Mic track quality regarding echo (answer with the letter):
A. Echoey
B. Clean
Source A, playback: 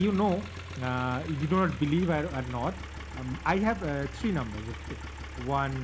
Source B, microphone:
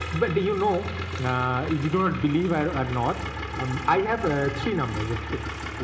A